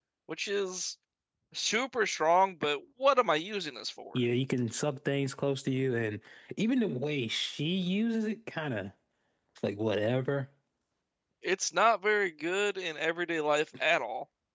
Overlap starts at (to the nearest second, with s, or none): none